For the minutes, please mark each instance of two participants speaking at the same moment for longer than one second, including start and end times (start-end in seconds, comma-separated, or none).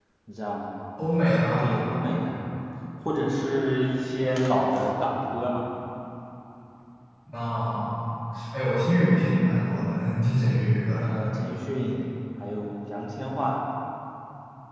none